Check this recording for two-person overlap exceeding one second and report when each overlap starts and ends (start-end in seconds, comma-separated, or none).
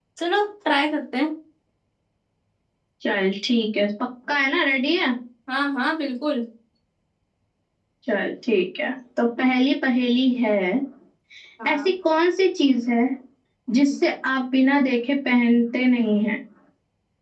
none